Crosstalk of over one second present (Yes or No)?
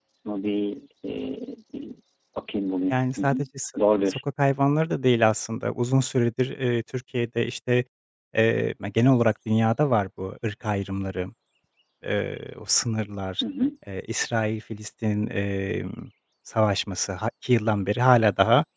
No